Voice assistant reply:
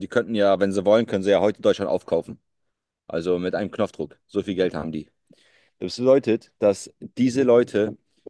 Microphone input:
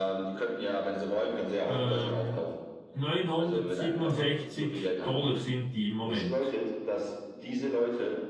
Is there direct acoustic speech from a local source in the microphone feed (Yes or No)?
Yes